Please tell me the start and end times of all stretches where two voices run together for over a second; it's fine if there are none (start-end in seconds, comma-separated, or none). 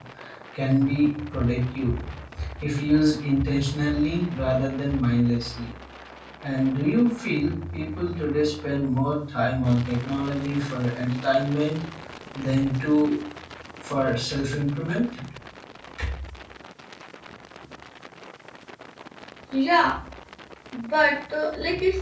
none